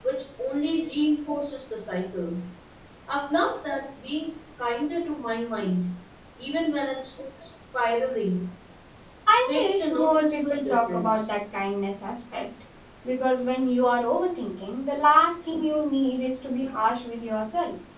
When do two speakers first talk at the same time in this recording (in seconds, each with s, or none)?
9.4 s